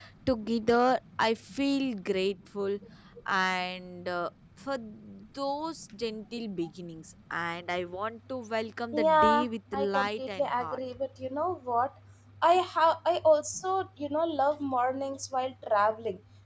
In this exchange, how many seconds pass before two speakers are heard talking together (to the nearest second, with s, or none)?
9 s